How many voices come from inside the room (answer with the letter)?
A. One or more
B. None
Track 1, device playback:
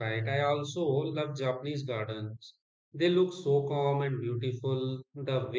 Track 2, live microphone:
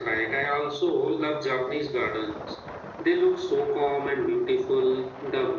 B